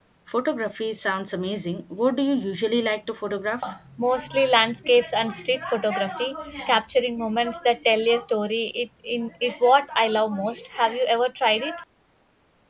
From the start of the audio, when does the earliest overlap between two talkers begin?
none

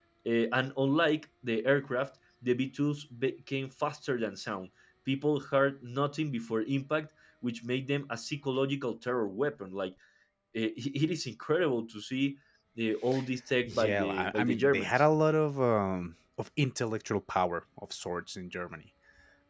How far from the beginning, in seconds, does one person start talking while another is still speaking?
13.7 s

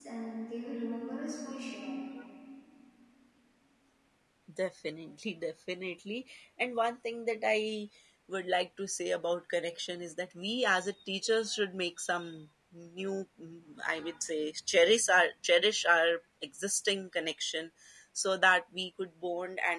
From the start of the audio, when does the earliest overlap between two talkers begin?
none

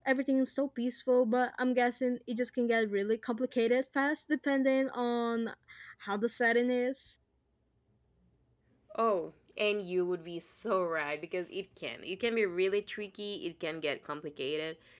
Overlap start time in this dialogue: none

